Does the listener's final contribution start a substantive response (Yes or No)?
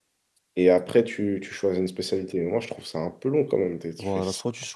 Yes